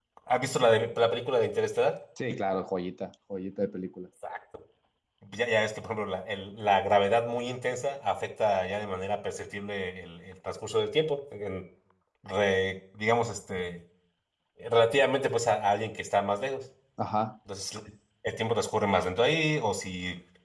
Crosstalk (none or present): none